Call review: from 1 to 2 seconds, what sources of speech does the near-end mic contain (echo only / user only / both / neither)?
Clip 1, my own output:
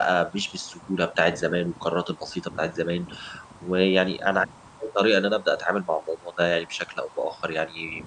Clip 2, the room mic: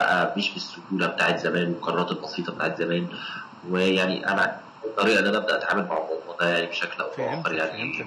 echo only